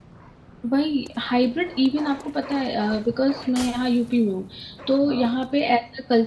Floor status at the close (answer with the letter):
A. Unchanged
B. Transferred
A